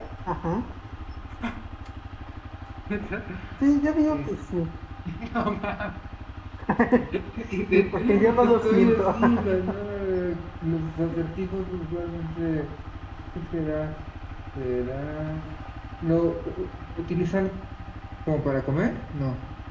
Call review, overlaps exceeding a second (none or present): present